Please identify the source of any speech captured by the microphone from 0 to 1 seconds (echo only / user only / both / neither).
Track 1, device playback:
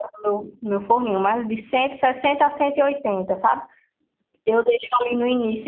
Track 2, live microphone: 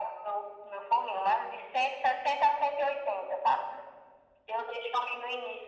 echo only